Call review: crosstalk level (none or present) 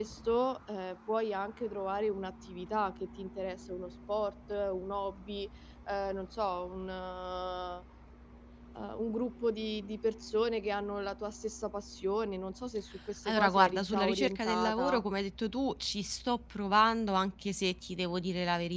present